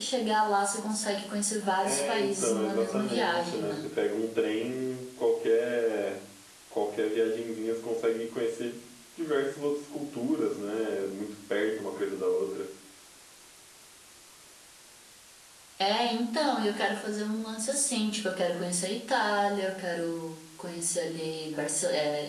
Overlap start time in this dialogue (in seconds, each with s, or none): 1.8 s